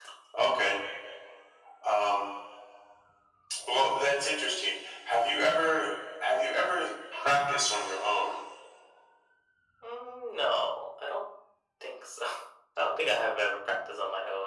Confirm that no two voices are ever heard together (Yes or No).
Yes